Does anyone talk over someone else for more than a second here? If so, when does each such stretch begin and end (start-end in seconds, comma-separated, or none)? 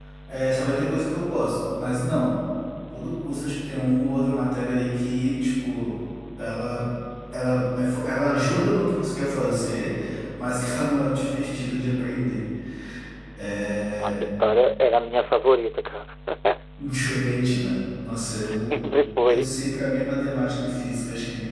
none